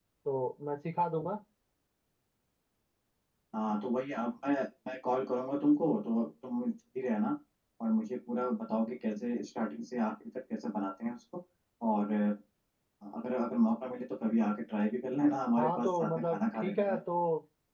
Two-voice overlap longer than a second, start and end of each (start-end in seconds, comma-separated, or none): 15.6-17.0